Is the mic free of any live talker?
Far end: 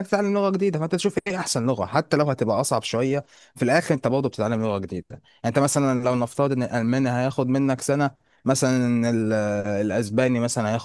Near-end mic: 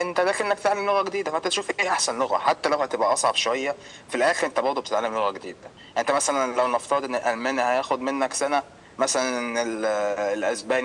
Yes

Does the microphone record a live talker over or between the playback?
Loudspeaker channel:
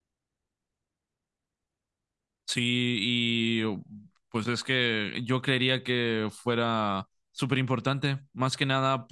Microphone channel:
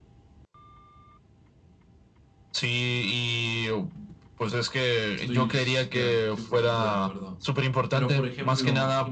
Yes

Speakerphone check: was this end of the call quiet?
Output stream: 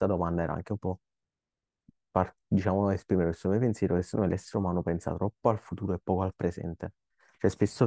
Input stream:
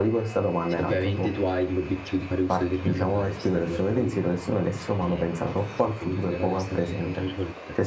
No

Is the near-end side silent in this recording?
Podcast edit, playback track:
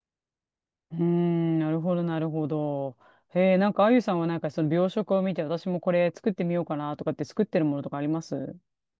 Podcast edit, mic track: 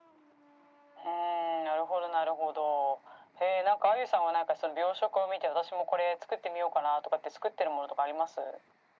Yes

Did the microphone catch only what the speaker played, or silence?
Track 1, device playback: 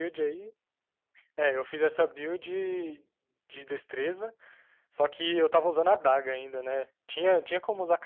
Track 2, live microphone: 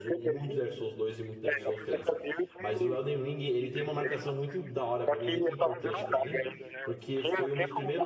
No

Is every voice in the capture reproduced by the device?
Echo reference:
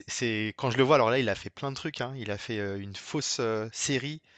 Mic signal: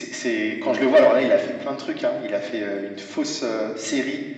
Yes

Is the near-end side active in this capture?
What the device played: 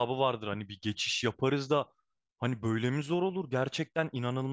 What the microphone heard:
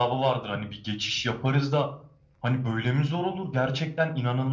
No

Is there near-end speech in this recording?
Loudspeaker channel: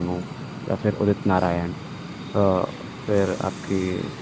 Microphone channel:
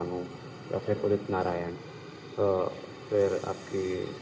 No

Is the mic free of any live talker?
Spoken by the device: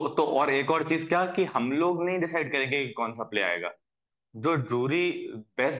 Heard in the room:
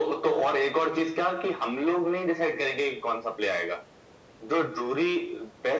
Yes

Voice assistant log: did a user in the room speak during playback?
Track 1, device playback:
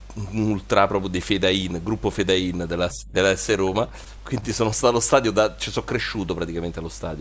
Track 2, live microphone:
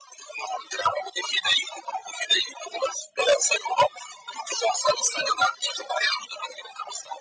No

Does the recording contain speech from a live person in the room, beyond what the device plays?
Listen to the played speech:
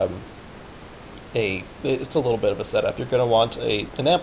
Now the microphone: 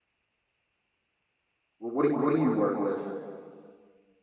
Yes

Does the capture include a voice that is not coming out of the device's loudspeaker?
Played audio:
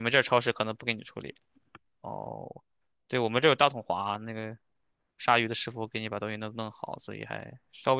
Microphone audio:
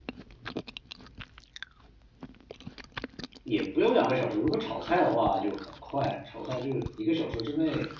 Yes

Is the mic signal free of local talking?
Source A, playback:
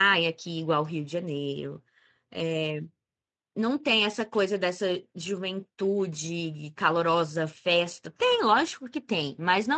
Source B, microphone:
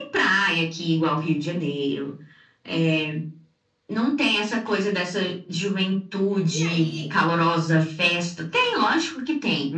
No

